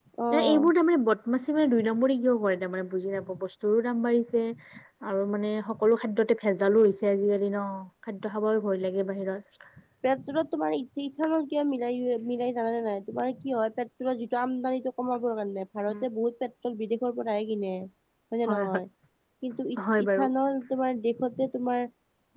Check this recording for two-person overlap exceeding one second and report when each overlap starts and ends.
none

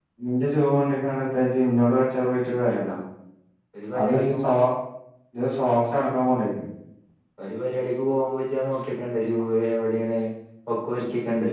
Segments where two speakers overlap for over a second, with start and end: none

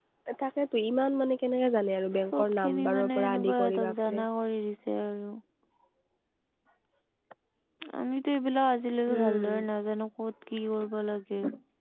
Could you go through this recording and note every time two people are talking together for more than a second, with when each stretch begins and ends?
2.3-4.2

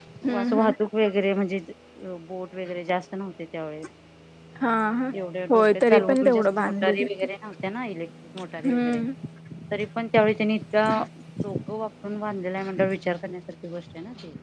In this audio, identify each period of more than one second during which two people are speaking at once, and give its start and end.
5.5-7.1

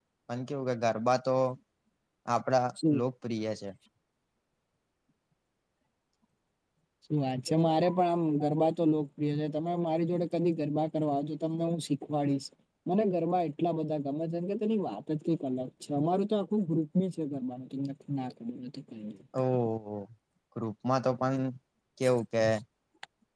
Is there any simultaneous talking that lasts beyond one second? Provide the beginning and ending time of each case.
none

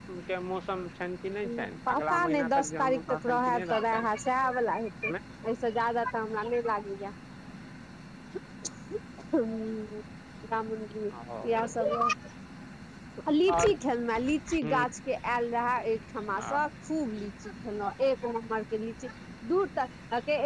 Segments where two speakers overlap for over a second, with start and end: 1.9-4.1

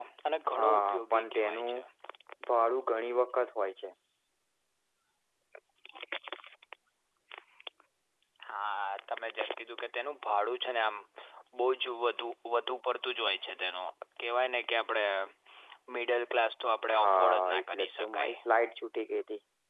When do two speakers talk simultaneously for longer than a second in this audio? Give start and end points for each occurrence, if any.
0.5-1.8, 16.9-18.4

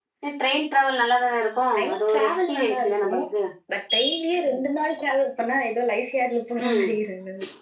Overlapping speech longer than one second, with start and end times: 1.7-3.1

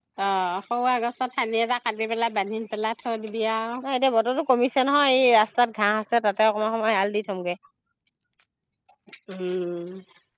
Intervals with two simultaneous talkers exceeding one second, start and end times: none

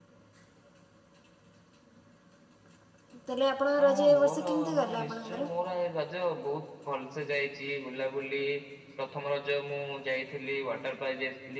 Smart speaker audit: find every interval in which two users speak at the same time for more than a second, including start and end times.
3.8-5.5

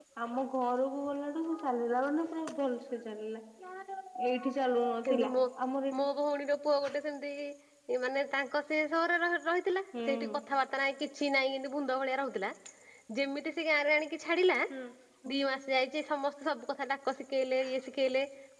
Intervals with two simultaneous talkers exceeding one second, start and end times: none

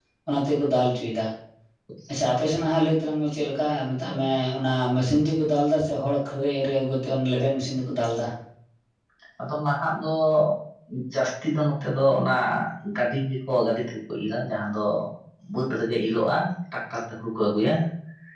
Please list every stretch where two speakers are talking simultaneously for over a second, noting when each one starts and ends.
none

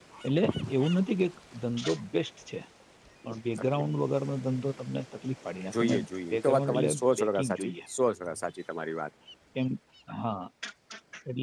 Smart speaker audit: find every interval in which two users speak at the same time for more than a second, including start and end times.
6.3-7.7

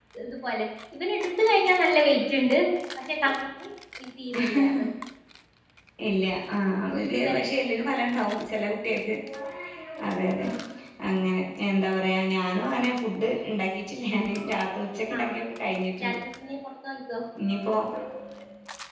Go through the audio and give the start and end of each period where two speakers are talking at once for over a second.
none

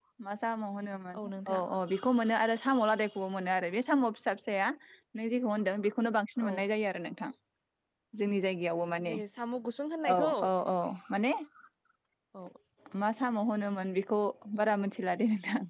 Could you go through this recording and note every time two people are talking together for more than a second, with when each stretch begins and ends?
none

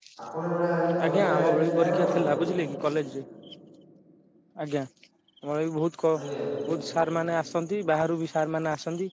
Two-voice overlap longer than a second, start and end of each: 1.1-2.3

